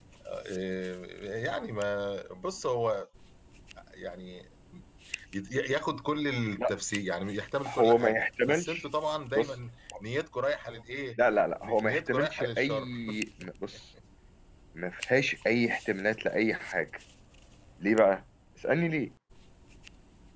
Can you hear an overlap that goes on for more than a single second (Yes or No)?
Yes